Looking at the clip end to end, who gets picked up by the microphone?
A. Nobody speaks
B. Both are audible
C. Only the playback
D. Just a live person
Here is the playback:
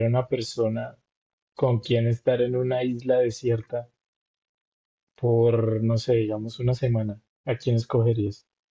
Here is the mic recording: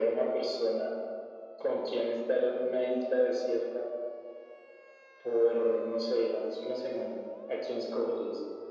C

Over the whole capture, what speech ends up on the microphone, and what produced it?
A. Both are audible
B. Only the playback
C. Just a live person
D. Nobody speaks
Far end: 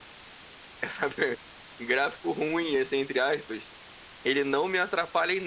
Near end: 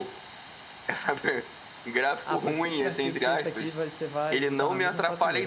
A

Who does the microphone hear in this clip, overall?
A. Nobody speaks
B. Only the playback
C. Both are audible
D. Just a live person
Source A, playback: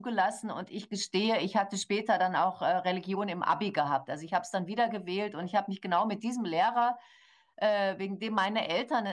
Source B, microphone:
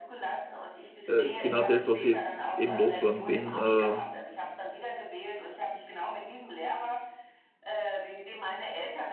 C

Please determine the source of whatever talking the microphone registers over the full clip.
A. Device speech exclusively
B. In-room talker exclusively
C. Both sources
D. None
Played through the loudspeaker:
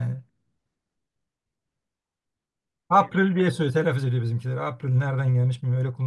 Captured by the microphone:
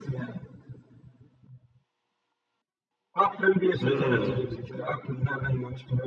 C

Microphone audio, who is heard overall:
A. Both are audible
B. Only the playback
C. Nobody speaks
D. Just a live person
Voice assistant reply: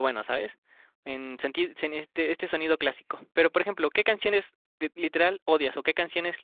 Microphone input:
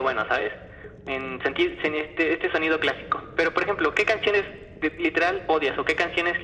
B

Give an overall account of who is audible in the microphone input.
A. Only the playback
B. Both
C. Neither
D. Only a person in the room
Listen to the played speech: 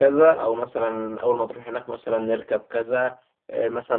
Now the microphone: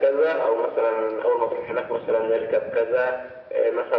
A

